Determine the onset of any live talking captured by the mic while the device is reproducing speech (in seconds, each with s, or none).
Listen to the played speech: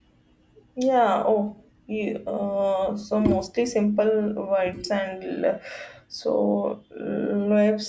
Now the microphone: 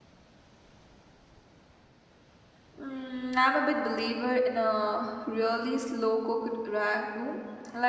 2.8 s